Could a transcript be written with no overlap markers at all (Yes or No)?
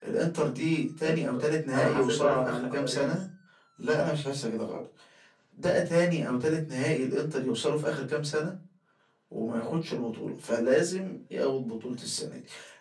No